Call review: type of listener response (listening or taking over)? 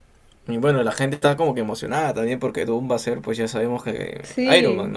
taking over